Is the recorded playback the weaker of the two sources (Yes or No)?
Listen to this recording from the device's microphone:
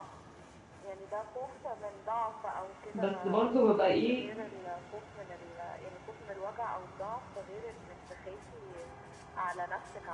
Yes